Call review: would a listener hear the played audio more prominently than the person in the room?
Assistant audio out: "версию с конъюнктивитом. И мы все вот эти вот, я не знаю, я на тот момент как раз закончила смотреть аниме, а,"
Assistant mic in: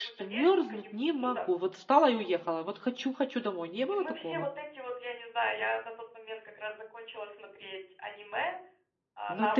No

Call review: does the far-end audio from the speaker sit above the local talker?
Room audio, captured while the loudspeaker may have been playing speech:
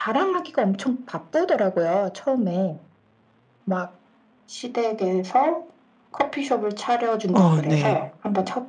No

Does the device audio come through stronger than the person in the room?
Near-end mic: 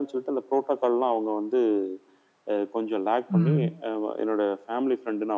No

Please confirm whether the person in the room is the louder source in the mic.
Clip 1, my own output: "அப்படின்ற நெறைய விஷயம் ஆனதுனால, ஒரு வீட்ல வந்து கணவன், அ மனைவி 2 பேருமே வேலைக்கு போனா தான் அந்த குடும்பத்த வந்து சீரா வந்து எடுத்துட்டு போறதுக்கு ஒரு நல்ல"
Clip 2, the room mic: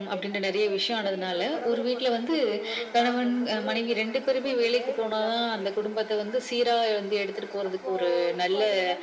No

